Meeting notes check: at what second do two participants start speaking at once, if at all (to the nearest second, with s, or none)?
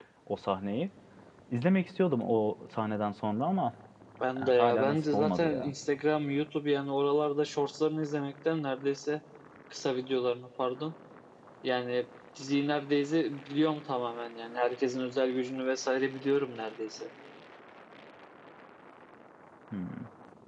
4 s